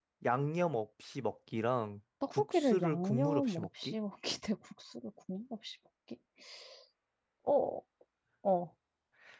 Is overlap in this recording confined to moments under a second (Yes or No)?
No